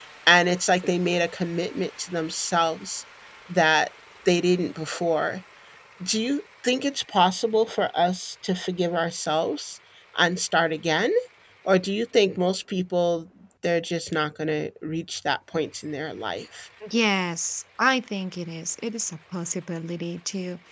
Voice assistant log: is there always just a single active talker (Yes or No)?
Yes